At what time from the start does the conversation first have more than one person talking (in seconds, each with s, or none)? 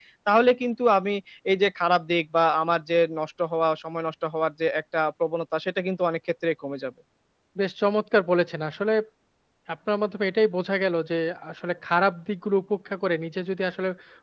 none